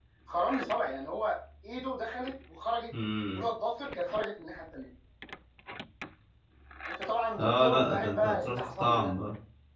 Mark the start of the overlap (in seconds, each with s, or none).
7.4 s